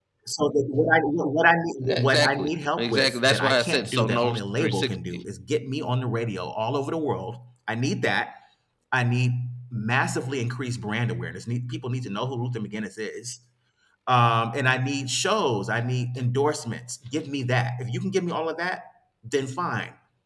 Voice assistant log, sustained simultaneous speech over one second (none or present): present